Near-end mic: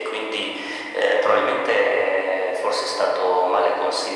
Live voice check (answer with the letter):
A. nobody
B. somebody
A